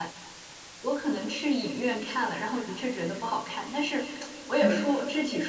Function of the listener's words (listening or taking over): listening